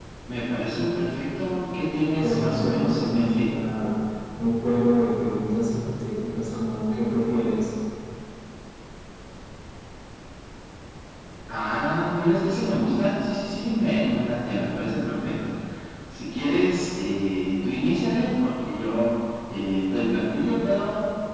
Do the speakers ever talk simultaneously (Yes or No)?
Yes